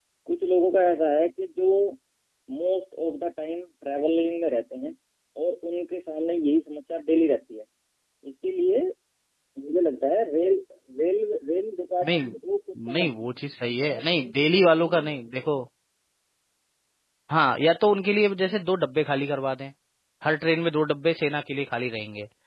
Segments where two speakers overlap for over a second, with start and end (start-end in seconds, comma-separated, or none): none